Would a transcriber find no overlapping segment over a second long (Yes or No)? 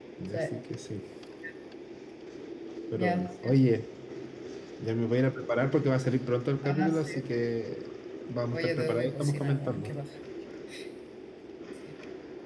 No